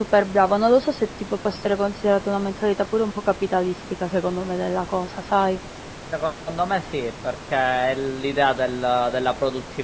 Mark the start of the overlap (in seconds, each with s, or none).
none